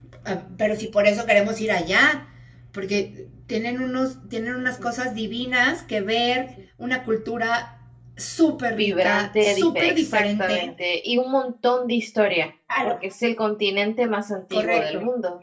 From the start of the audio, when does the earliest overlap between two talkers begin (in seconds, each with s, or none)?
8.8 s